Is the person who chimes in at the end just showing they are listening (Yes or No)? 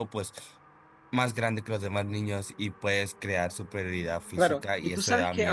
No